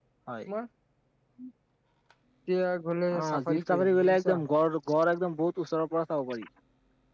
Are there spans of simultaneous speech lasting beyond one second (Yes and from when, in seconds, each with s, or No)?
Yes, from 3.2 s